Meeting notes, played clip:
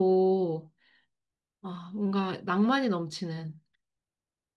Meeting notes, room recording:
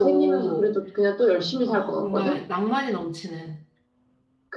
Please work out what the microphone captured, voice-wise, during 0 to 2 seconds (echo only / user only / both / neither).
both